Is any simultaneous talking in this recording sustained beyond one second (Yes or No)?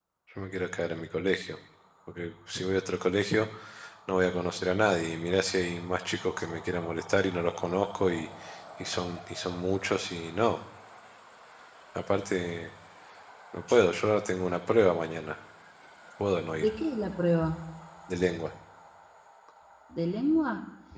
No